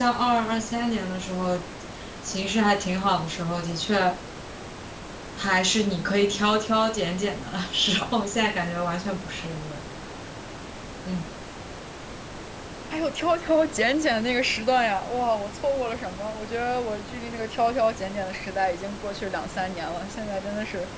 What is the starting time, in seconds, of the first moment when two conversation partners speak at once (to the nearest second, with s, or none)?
none